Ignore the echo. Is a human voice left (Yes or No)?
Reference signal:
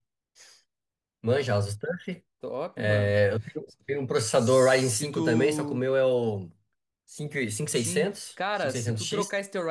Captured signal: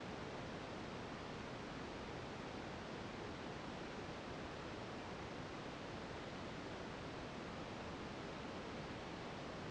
No